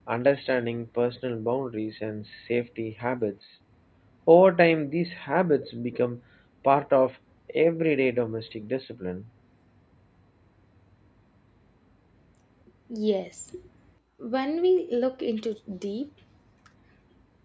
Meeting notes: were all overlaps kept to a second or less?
Yes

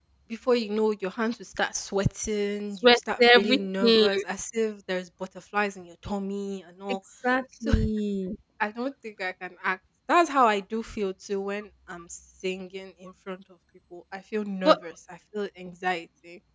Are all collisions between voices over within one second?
No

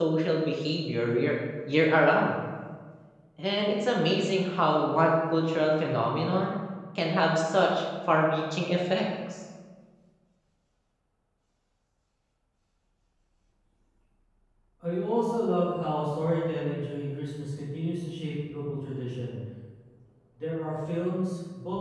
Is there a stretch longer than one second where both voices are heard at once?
No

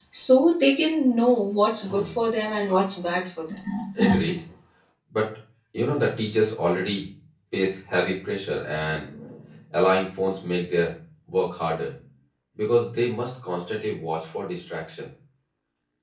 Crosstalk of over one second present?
No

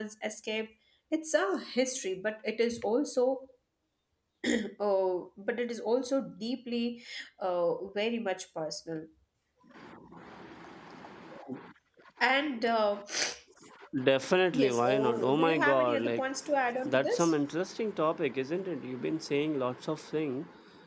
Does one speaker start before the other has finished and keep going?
Yes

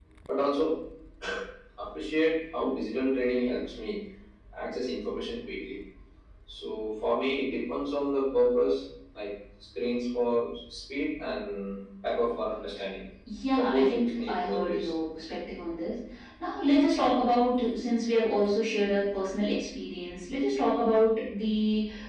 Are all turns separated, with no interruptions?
No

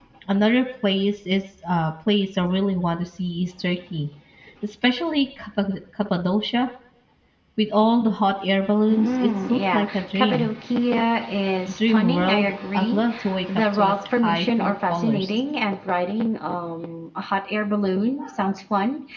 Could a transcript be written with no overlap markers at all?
No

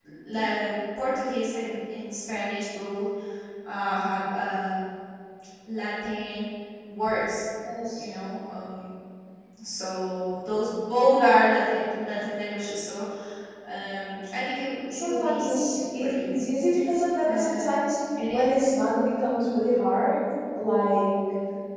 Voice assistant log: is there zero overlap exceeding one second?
No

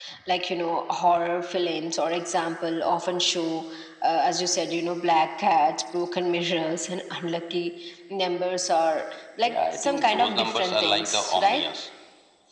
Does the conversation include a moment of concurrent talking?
Yes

